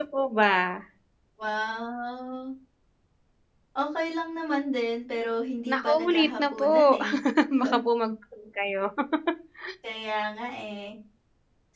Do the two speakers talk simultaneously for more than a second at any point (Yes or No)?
Yes